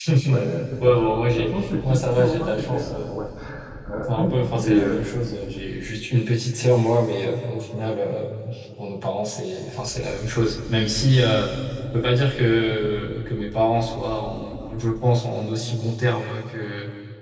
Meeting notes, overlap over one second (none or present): present